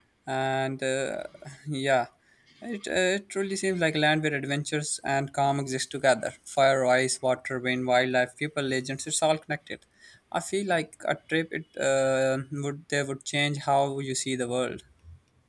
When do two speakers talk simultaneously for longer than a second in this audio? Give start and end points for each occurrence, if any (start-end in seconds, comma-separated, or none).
none